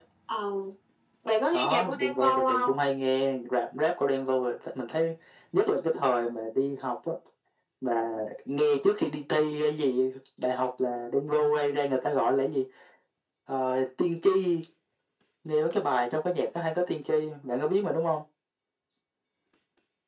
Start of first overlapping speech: 1.5 s

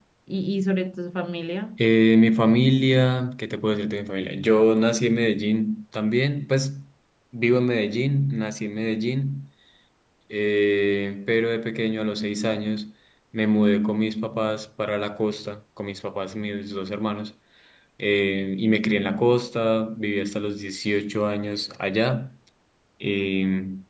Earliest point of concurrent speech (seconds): none

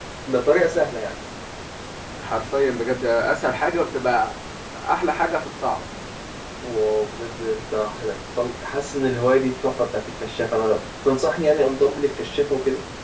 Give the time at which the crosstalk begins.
none

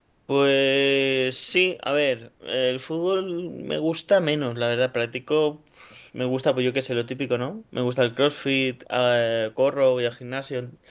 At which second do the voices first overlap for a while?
none

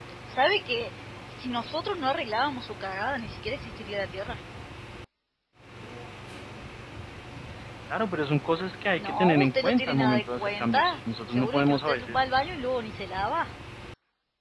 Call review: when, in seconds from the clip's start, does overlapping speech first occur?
9.0 s

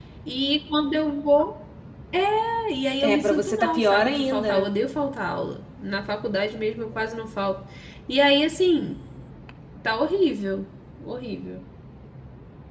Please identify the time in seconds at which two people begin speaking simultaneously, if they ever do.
3.0 s

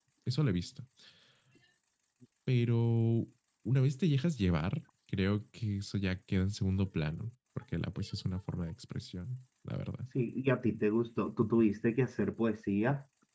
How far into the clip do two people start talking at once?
none

